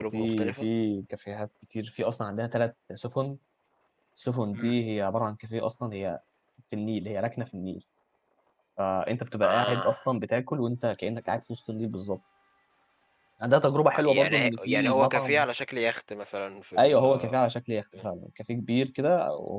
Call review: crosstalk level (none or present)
present